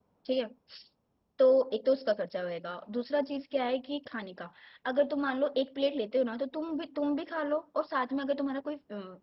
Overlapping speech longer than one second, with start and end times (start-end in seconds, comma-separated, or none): none